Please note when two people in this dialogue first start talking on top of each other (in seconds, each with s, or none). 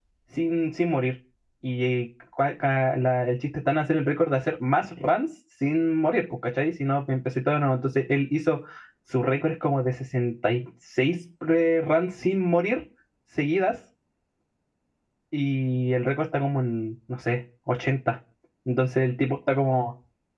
none